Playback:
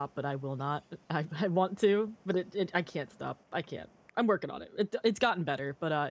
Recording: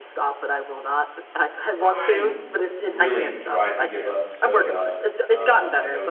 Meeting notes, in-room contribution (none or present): present